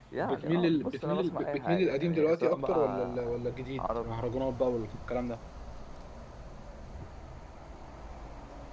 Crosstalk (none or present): present